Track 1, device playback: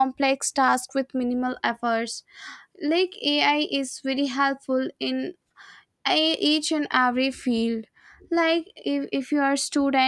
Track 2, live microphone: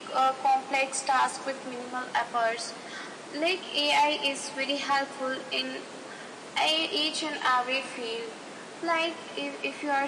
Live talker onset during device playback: none

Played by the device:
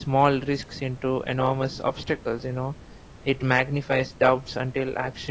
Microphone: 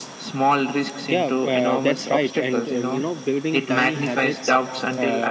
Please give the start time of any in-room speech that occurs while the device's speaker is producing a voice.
1.1 s

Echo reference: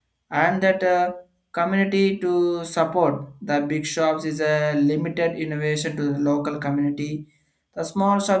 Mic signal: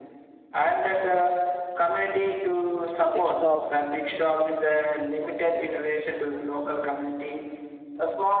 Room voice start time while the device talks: 3.1 s

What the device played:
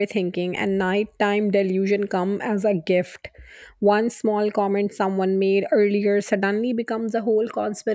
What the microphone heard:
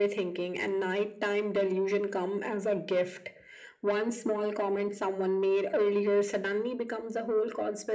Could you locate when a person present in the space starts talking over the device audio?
none

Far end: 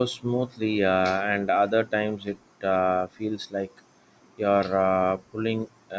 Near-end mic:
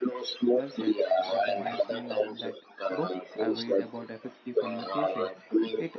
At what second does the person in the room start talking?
0.5 s

